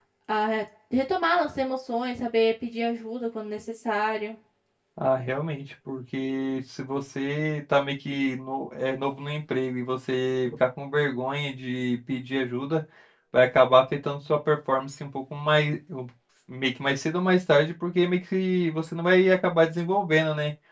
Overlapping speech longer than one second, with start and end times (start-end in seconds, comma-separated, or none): none